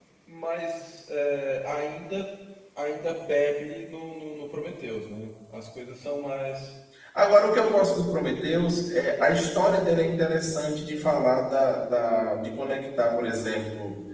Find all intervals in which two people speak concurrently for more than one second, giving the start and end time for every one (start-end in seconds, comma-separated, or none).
none